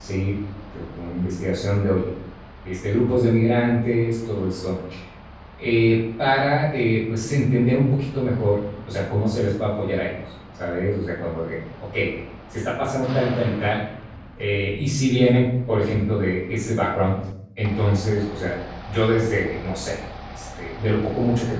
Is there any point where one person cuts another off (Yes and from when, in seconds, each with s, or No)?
No